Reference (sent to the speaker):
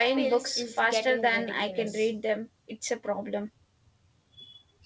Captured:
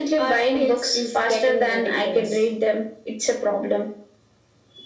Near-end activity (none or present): none